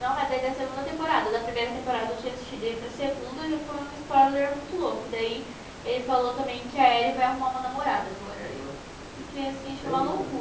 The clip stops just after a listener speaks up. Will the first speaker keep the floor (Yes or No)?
No